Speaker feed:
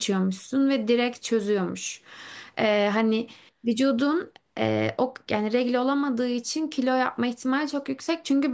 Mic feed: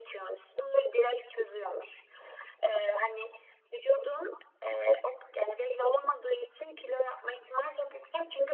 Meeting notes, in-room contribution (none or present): none